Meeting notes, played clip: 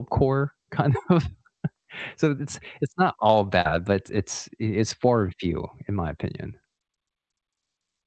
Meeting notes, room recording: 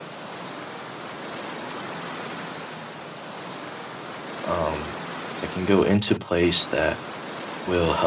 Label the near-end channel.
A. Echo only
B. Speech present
B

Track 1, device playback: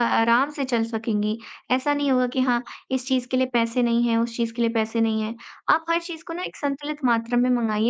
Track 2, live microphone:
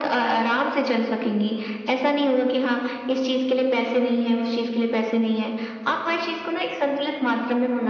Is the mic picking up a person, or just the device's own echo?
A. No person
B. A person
A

